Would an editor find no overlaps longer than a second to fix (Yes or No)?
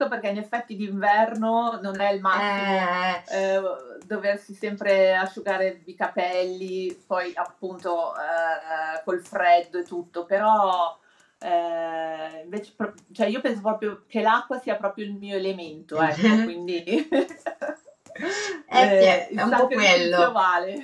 No